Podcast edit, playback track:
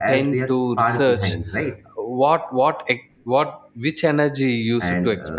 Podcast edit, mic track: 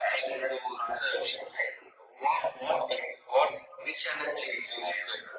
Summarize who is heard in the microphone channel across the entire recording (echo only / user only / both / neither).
echo only